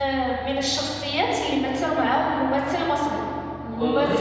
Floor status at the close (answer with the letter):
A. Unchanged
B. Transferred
A